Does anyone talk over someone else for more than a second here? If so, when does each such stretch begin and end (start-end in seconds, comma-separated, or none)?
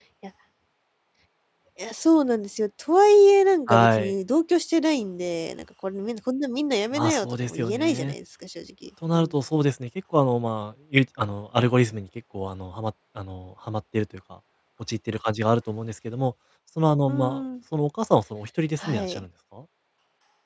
6.9-8.1